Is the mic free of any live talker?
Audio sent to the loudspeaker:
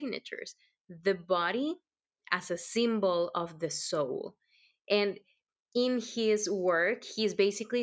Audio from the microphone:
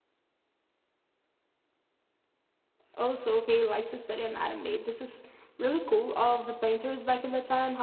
No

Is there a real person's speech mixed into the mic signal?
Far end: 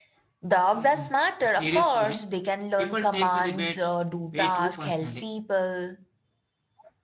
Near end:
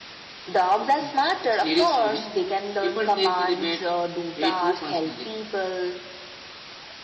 No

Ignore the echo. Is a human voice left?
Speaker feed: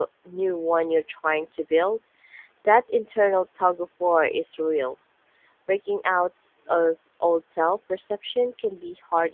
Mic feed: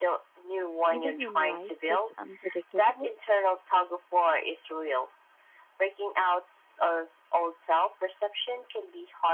Yes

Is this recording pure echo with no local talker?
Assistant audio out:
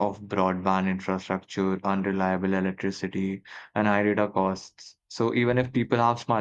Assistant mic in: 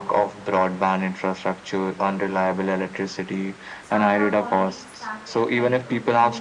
No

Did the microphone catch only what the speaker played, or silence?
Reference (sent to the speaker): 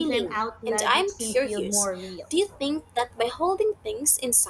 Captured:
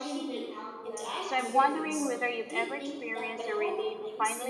No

